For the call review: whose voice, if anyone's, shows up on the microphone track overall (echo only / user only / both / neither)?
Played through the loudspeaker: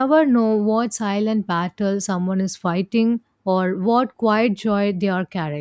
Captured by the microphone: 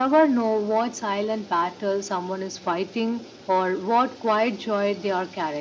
echo only